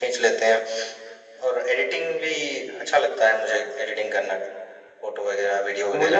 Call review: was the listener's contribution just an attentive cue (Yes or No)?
No